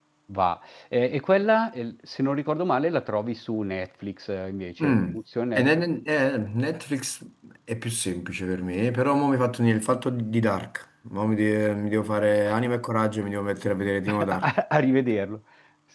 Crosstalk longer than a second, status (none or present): none